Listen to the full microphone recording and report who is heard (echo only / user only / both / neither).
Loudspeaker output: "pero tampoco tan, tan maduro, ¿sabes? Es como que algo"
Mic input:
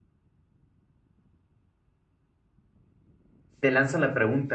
user only